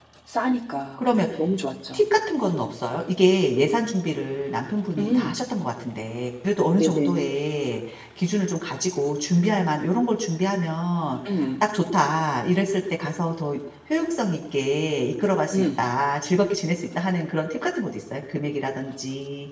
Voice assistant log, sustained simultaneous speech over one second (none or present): none